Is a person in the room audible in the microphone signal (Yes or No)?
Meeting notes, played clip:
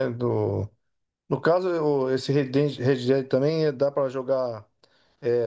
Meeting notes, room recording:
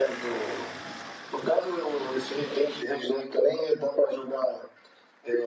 No